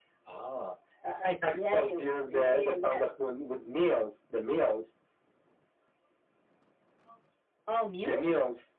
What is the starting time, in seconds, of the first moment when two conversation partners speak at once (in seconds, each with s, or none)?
1.5 s